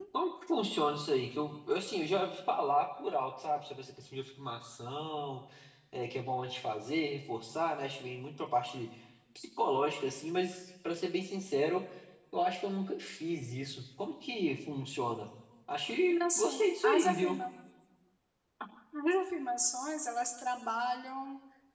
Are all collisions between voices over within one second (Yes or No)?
No